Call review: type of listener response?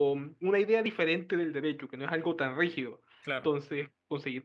listening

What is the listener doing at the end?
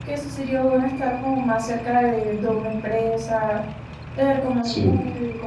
listening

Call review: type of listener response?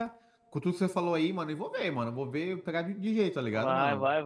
taking over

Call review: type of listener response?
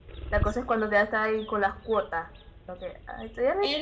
taking over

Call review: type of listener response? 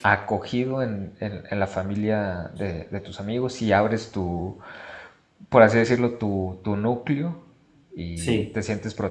listening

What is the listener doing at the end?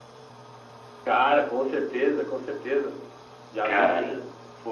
listening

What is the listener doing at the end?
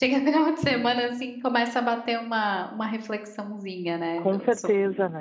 taking over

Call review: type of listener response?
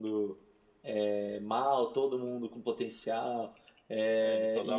taking over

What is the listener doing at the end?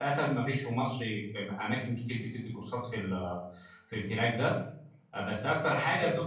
listening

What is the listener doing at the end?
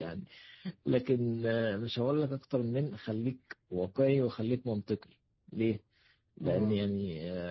listening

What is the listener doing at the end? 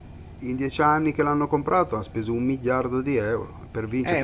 taking over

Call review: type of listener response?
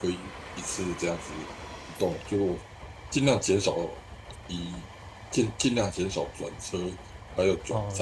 taking over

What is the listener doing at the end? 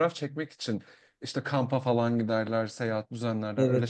taking over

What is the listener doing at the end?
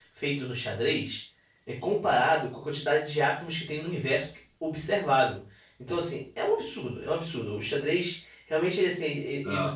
listening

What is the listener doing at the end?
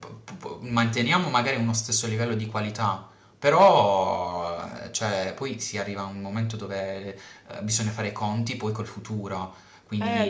taking over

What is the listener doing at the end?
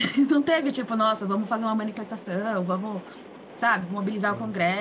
listening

